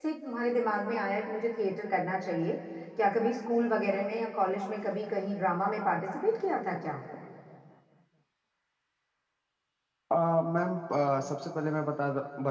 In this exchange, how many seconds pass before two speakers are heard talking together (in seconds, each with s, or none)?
none